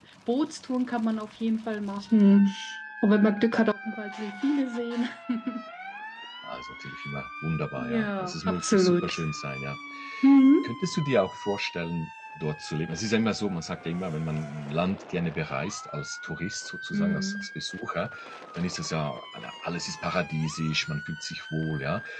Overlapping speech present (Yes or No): Yes